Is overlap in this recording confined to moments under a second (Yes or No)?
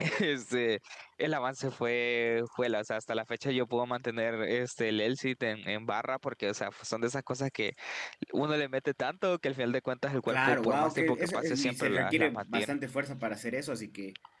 No